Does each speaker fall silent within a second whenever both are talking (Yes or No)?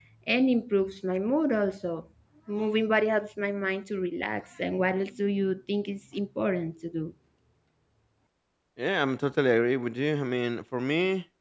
Yes